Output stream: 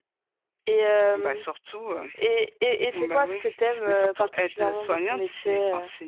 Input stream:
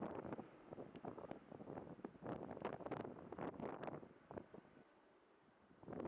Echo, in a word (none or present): none